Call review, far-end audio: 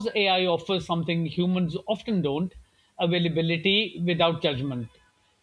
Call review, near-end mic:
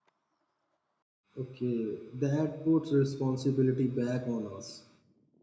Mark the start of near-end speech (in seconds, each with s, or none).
1.4 s